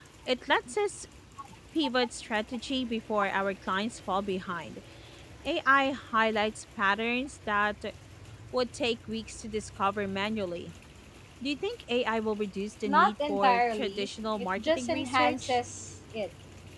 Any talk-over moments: Yes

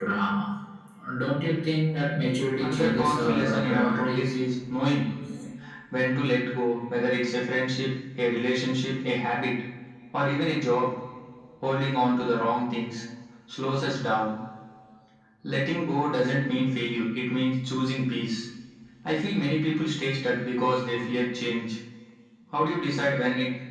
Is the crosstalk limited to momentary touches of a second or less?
No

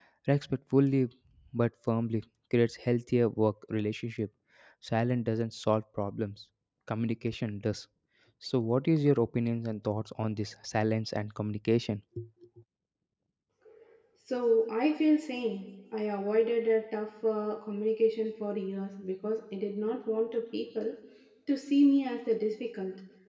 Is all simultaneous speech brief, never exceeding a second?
Yes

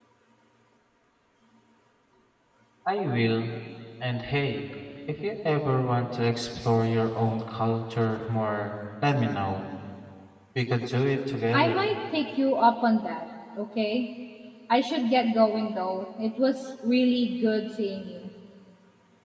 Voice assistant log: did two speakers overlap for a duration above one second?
No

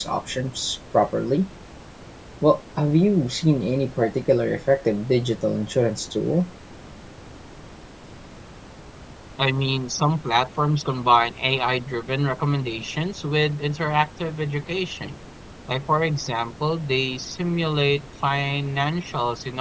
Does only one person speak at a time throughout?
Yes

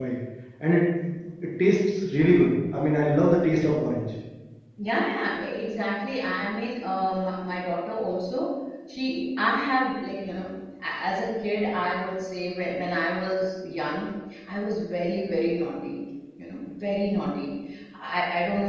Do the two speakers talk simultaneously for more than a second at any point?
No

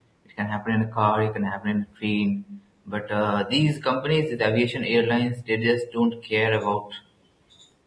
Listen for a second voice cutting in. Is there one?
No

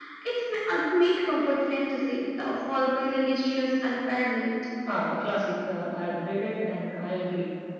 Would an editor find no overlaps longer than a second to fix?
Yes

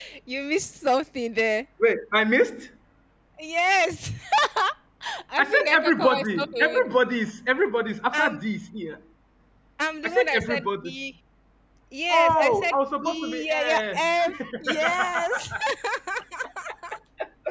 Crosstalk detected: Yes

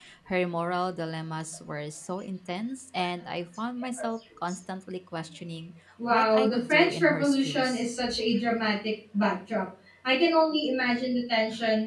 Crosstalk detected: Yes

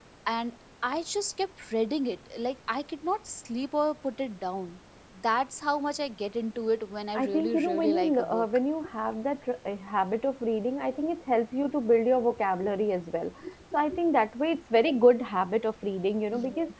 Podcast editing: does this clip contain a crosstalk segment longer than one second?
Yes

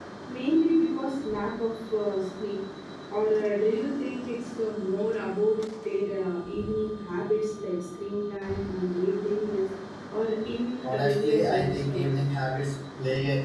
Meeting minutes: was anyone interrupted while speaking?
Yes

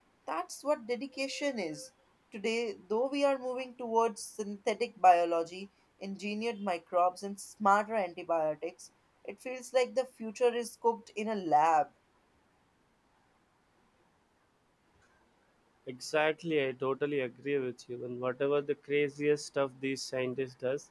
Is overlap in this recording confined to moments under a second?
Yes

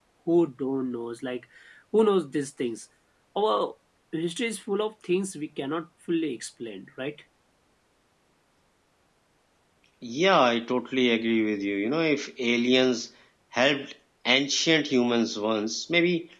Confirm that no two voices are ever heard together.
Yes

